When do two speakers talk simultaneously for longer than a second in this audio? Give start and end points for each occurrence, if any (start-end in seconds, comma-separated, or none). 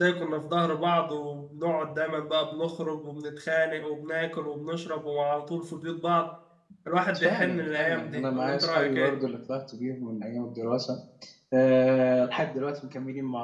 7.2-9.1